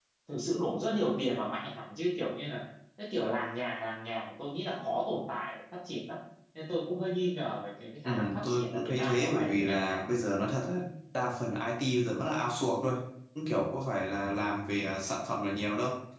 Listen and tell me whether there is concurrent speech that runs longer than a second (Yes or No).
Yes